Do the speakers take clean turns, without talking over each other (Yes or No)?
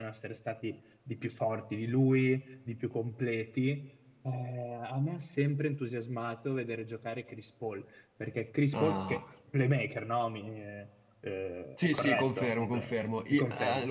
No